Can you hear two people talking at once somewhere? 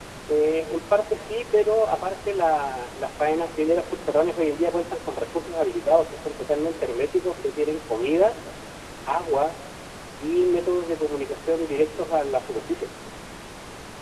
No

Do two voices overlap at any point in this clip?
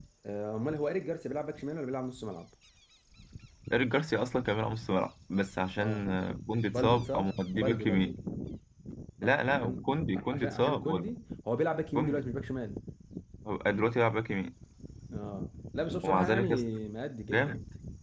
Yes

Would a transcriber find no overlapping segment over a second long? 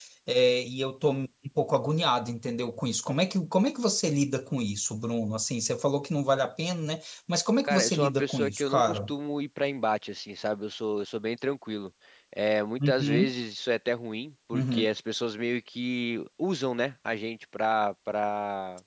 No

